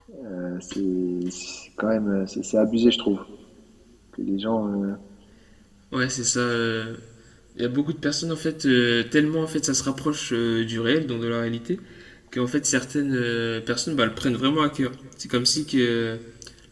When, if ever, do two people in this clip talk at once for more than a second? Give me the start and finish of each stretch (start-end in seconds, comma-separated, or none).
none